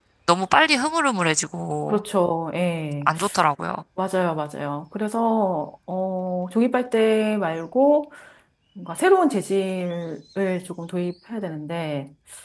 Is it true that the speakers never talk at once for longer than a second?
Yes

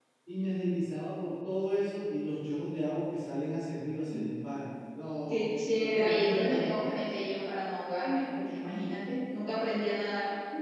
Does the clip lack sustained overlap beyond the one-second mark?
No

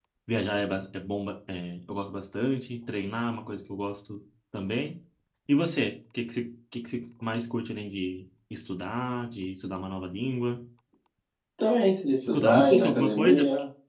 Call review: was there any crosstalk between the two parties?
Yes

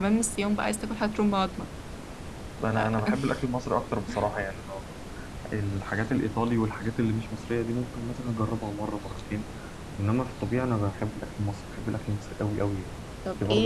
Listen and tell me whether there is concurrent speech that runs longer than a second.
No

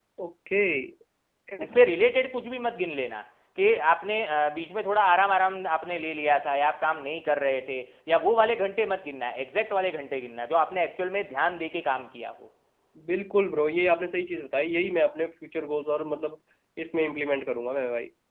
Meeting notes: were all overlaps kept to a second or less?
Yes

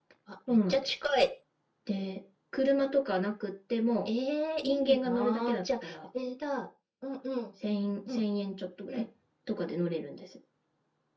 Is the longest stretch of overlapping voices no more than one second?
No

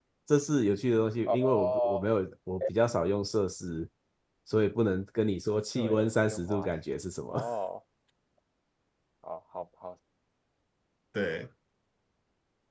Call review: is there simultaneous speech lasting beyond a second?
Yes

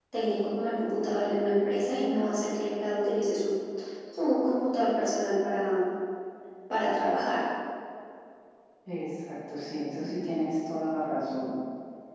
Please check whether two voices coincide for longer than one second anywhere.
No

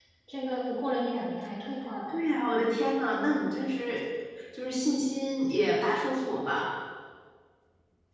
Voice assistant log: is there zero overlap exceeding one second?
Yes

